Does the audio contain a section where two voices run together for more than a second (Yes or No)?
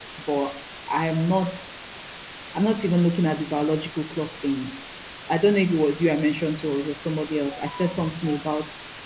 No